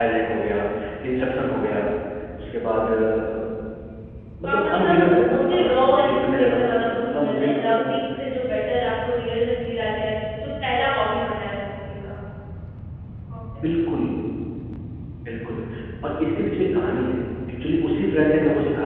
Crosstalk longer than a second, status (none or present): present